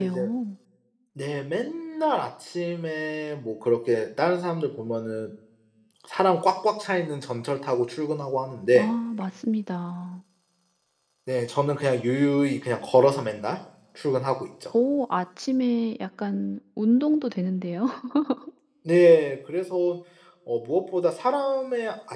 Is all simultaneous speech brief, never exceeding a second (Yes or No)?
Yes